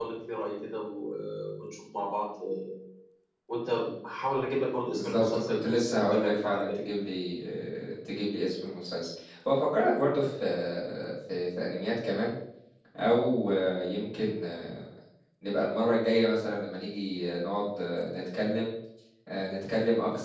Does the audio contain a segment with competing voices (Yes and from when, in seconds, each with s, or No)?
Yes, from 4.9 s